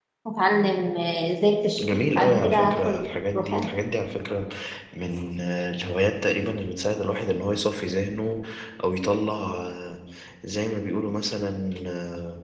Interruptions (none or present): present